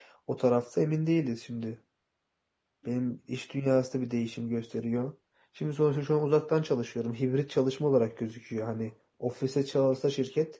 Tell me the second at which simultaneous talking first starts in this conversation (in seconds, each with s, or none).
none